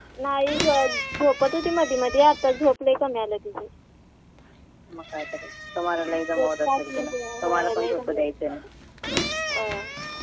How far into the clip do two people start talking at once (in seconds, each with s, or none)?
6.3 s